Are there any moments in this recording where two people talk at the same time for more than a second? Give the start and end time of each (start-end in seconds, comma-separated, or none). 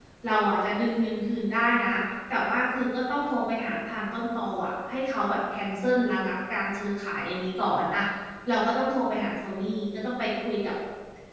none